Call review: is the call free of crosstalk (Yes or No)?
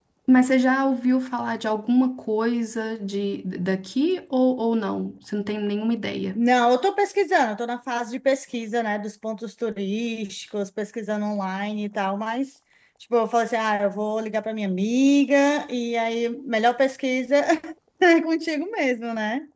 Yes